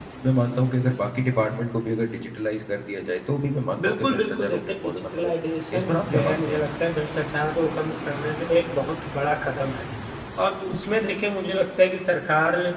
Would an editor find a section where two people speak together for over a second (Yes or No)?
Yes